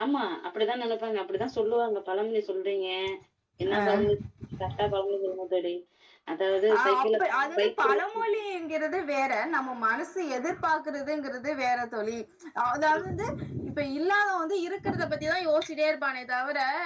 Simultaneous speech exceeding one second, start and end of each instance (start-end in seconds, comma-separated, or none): 6.8-8.0